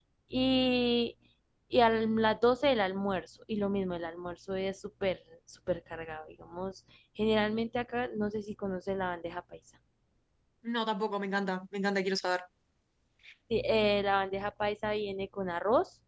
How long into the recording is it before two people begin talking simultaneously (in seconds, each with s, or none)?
none